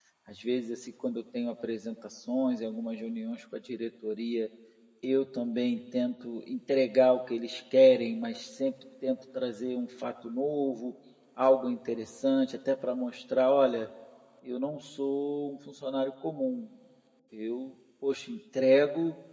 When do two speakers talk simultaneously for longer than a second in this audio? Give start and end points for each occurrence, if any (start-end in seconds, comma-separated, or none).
none